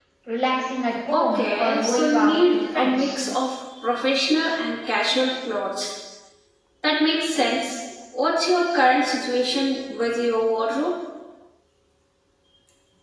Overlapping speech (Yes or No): Yes